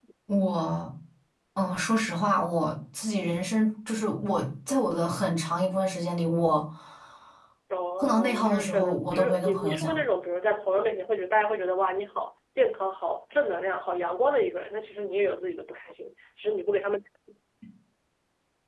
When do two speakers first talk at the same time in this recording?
8 s

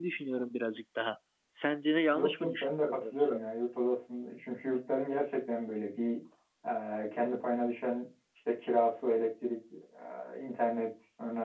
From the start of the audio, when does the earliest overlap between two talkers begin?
2 s

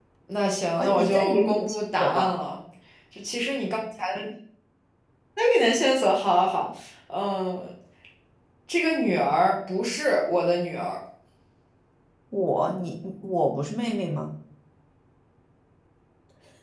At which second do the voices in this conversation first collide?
1 s

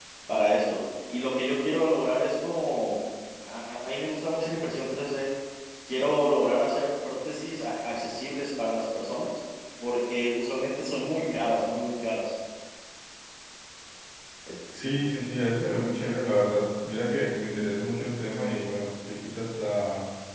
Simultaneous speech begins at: none

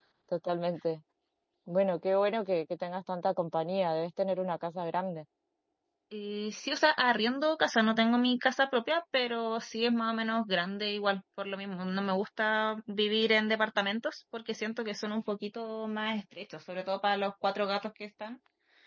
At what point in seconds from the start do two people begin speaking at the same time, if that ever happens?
none

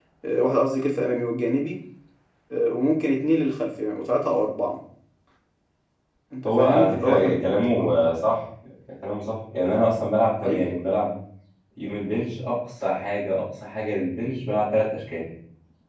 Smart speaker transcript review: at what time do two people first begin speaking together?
6 s

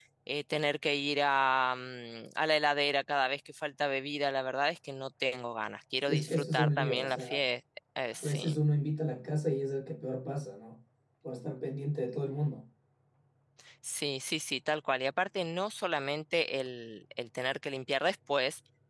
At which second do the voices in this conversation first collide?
6 s

